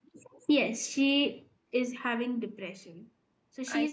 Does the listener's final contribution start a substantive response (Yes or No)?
No